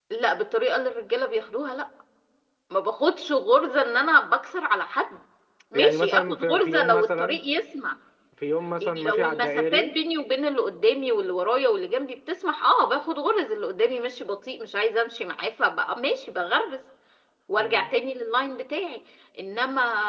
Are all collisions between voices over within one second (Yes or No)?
No